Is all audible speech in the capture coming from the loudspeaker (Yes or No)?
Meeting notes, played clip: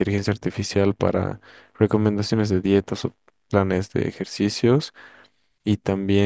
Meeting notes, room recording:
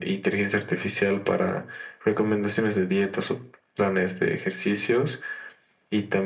Yes